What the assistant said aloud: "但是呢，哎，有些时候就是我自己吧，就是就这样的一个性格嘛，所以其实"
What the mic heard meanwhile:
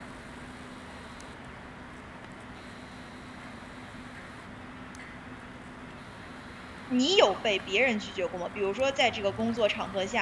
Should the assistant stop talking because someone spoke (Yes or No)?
Yes